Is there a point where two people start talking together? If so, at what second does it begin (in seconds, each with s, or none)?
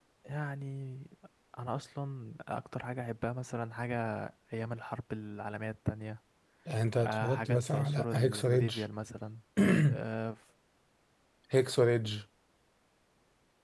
7.0 s